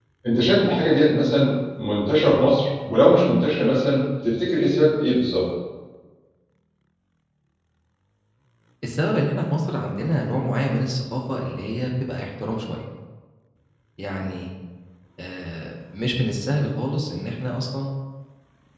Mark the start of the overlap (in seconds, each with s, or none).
none